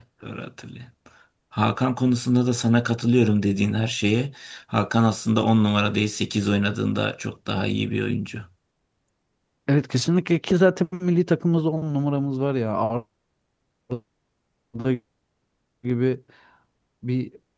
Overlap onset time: none

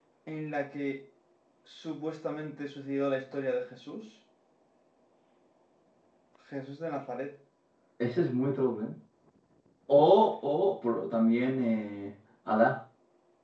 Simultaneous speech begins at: none

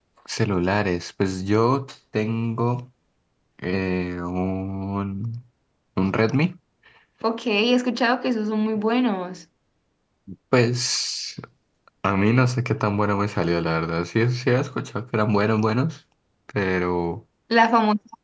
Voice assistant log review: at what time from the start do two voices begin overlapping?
none

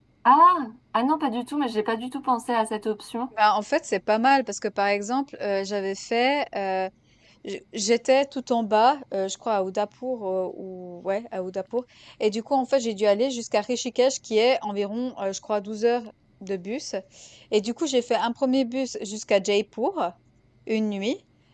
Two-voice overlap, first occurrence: none

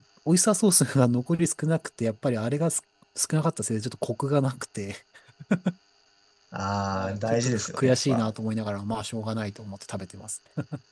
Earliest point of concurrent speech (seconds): 7.0 s

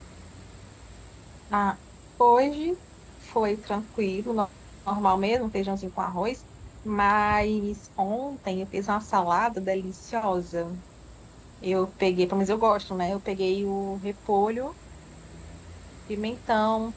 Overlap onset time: none

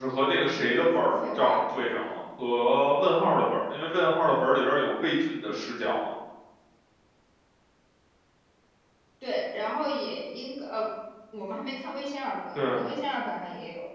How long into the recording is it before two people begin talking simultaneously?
0.5 s

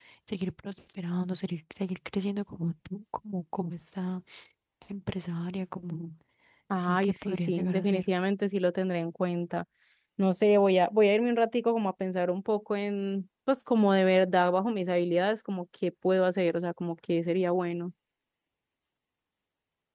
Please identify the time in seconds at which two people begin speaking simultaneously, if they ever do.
6.7 s

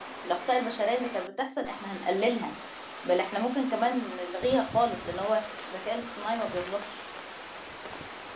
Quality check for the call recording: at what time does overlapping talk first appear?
none

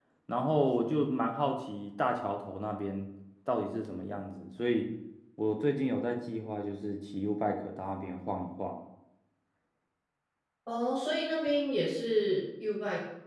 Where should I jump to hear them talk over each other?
none

